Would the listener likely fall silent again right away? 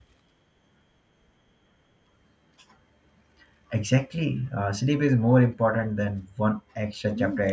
No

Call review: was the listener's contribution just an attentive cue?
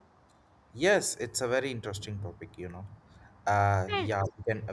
Yes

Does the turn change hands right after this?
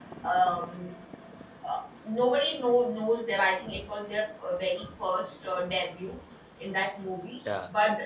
No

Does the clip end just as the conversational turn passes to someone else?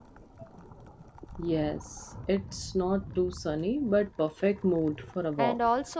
Yes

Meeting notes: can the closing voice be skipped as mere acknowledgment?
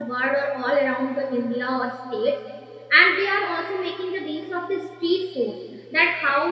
Yes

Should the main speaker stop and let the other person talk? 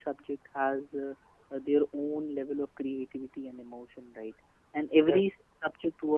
No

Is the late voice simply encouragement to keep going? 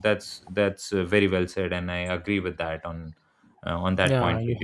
No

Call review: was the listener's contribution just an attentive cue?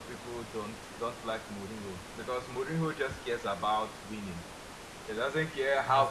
Yes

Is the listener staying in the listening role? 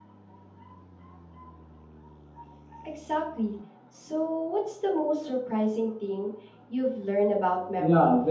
No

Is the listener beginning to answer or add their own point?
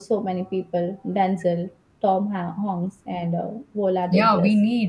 Yes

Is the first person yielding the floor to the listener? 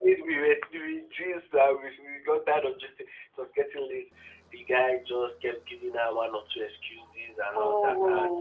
No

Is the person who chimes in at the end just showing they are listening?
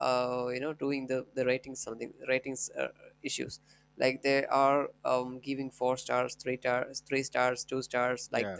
Yes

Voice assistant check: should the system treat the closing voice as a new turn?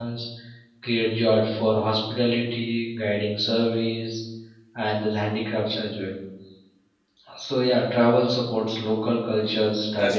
No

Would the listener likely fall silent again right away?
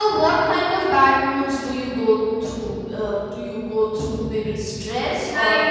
No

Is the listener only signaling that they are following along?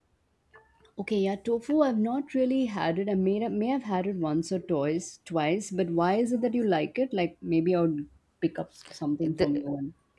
No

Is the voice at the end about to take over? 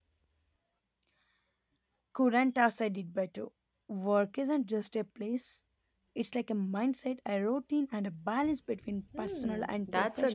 Yes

